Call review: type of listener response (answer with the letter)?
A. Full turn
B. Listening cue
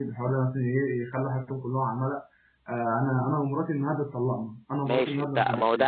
A